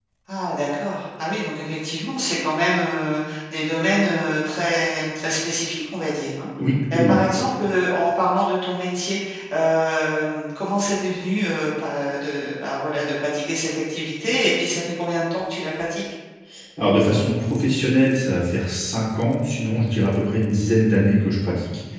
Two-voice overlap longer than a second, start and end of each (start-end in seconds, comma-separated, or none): none